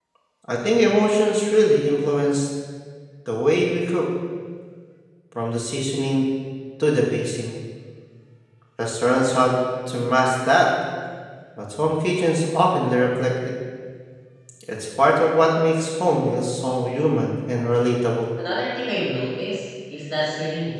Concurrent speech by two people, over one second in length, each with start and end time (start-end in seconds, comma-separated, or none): none